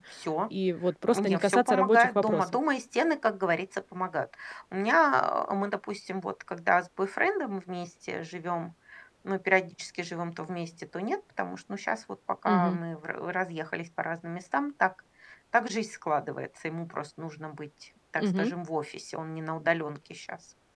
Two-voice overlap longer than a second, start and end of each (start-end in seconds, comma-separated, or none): 1.1-2.4